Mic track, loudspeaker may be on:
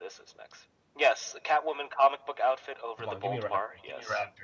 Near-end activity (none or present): present